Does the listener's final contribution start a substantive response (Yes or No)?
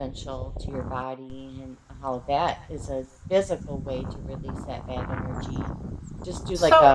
Yes